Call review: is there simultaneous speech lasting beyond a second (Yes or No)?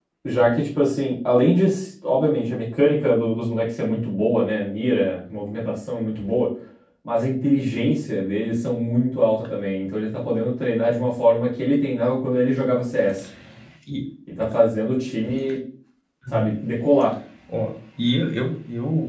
No